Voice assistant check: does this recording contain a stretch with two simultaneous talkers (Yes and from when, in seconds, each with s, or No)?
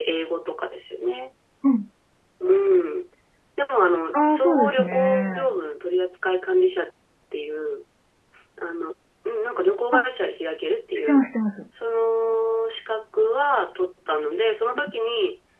Yes, from 4.1 s